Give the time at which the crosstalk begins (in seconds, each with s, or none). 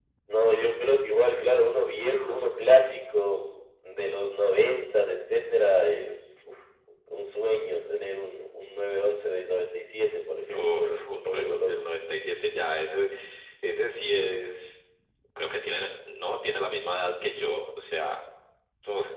10.5 s